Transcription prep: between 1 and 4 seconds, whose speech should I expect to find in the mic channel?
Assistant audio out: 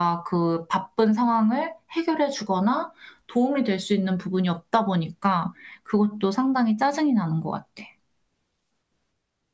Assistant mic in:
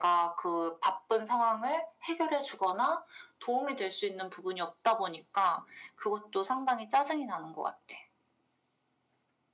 echo only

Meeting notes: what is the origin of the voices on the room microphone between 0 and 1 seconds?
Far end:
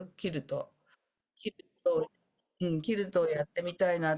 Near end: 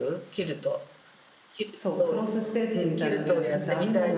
echo only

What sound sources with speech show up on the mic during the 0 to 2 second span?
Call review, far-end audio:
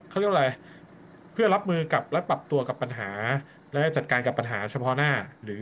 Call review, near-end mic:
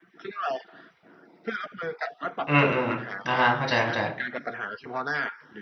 echo only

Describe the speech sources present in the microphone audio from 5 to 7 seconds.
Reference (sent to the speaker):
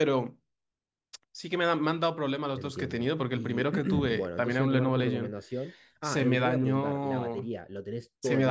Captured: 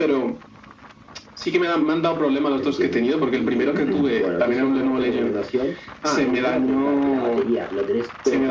echo only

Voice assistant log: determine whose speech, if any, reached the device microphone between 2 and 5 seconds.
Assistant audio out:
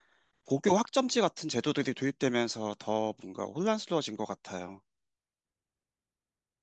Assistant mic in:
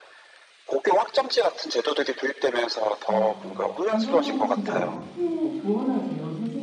both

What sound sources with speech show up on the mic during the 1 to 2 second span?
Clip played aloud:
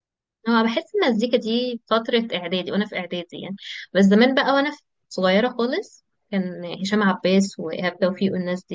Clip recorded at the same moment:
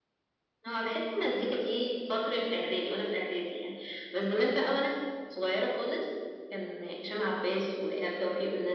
echo only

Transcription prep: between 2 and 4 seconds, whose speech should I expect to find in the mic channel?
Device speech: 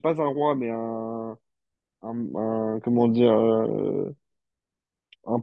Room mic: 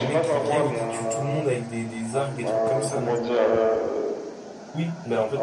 both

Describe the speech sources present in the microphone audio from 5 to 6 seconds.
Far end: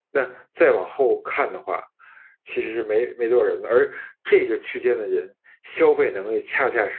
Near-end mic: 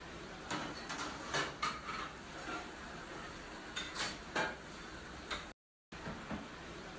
neither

